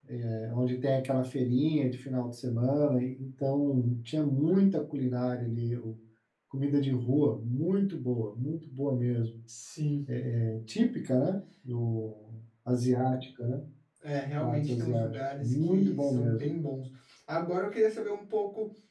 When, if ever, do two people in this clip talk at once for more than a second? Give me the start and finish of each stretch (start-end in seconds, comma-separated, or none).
14.4-16.4